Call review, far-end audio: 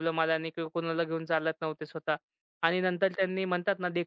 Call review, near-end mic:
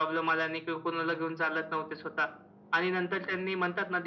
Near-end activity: none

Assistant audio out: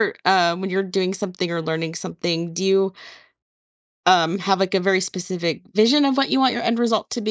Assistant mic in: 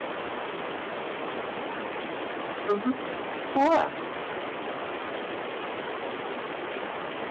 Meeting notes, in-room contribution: present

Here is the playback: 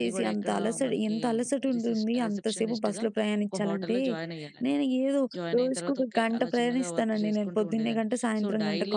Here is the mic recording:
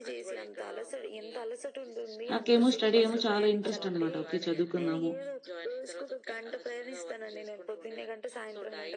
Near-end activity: present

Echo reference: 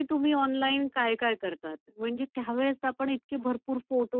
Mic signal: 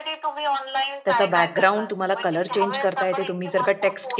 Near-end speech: present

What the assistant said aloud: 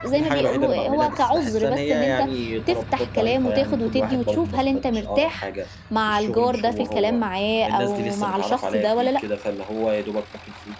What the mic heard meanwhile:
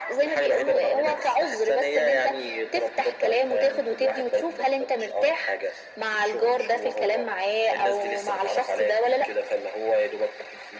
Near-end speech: none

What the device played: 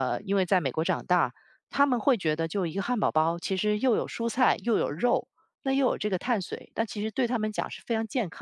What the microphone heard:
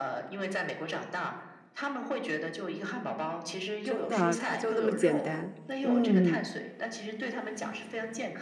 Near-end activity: present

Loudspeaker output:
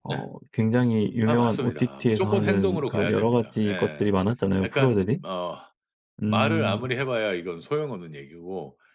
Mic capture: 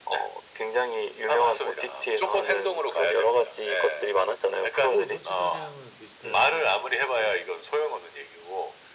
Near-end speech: present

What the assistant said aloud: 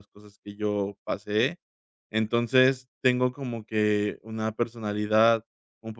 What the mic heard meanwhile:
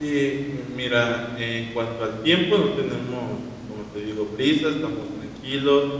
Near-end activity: present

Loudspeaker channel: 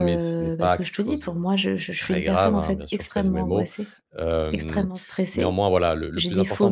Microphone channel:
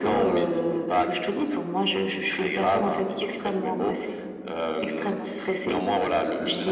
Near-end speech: none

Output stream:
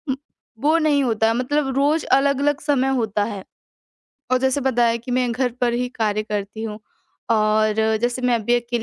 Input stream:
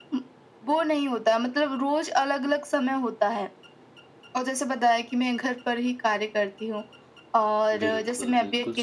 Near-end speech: present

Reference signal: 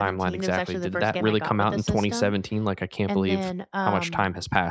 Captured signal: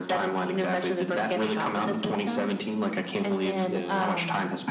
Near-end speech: present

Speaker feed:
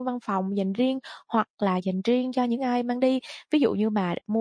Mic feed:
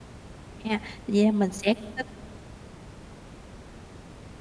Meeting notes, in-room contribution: present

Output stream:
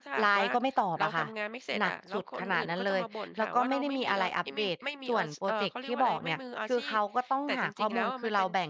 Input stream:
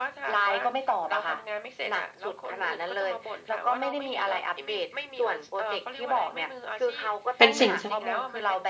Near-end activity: present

